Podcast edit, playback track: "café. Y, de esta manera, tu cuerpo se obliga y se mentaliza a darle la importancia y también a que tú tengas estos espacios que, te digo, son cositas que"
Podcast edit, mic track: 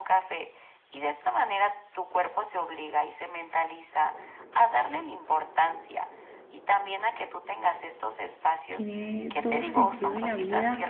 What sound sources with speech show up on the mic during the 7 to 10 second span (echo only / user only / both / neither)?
both